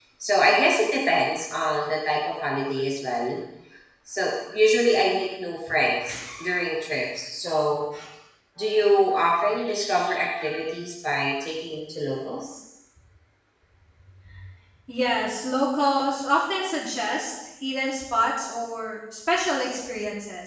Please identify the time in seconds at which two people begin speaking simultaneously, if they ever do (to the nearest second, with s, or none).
none